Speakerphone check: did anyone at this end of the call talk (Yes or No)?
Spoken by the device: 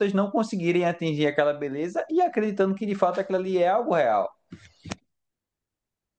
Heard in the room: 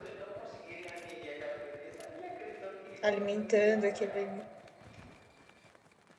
Yes